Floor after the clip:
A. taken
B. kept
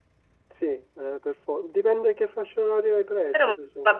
A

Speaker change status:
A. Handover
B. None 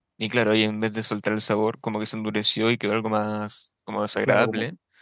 A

